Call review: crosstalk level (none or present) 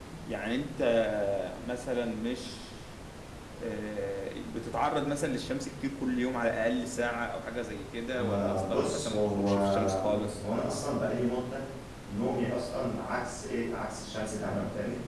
present